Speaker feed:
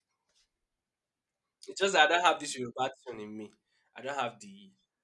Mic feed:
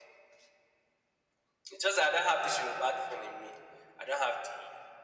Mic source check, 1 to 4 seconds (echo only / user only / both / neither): echo only